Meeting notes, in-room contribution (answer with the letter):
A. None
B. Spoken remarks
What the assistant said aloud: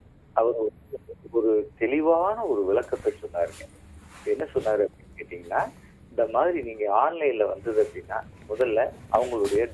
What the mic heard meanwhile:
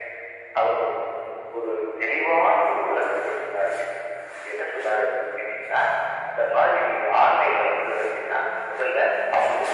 A